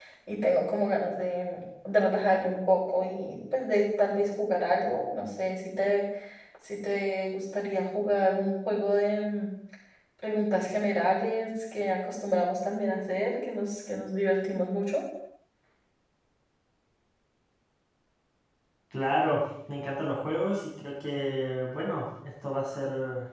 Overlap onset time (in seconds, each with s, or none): none